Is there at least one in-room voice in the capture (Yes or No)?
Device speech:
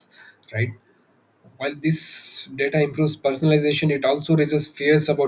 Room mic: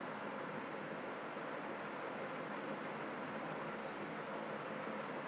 No